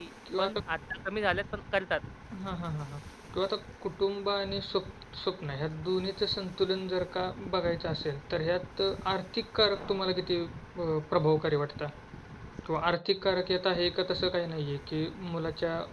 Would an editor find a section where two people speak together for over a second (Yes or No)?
No